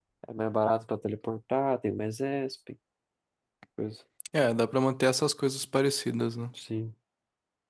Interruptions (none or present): none